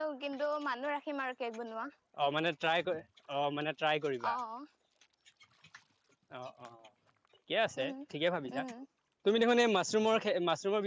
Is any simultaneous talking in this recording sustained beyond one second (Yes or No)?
No